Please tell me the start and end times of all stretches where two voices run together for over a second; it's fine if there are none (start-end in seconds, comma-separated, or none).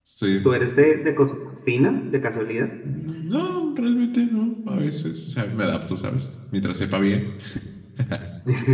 none